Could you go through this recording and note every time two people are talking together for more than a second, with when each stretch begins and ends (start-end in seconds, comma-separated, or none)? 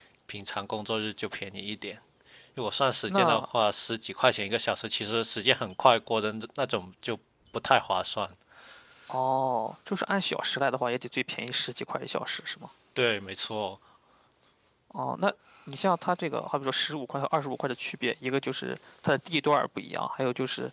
none